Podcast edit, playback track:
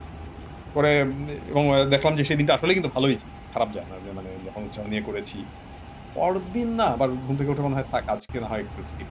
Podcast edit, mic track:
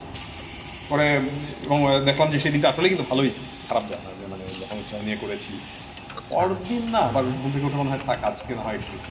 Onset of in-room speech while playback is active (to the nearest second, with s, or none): 6 s